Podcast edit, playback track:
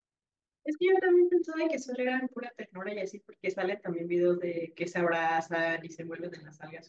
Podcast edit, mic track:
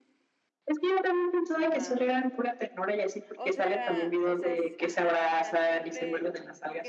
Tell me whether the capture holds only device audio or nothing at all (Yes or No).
No